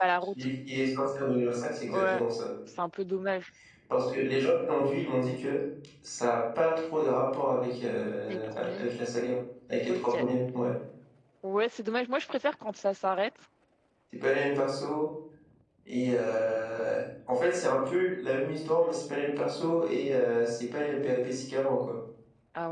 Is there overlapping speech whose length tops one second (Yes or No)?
No